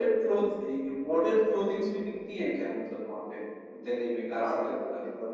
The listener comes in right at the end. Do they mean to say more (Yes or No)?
Yes